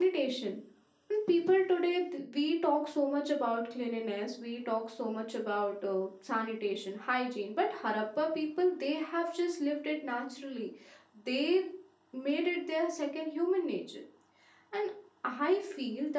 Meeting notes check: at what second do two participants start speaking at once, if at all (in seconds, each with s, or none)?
none